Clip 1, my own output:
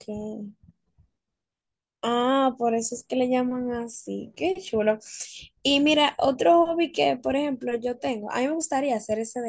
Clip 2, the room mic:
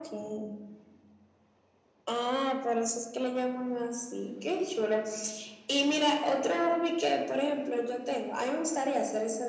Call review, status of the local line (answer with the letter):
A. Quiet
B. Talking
A